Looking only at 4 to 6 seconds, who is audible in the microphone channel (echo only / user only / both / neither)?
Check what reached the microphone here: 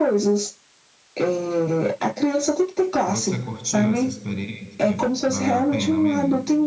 both